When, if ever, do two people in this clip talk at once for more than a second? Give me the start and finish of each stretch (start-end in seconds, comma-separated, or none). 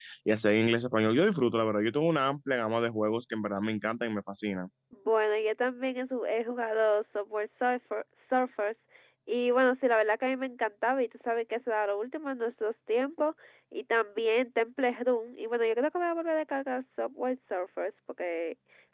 none